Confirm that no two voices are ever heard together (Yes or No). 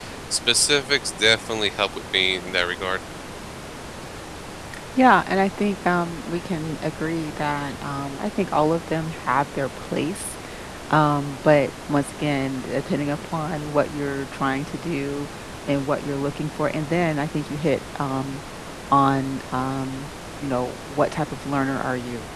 Yes